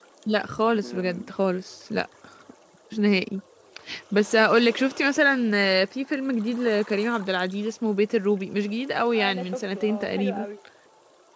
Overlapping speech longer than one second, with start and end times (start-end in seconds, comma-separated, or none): 9.1-10.4